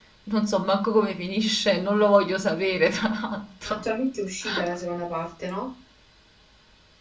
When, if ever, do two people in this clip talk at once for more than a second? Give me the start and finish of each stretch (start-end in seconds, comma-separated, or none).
none